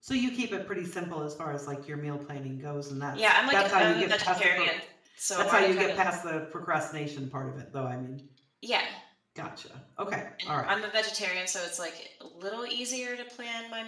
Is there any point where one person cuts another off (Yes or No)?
Yes